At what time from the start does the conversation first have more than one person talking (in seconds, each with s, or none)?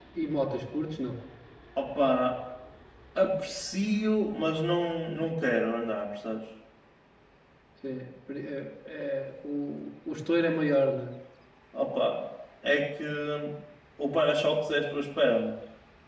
none